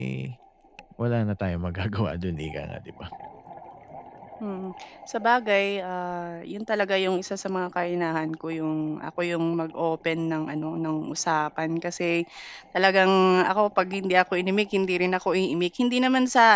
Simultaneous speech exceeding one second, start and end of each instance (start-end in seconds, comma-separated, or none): none